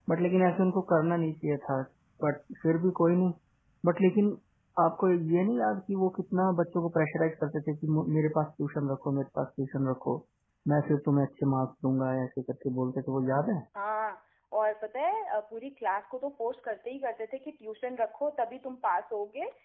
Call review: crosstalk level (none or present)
none